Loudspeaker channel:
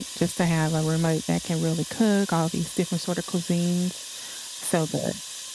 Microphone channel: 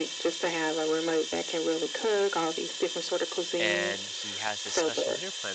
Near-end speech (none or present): present